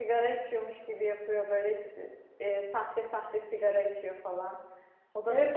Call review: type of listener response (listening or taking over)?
taking over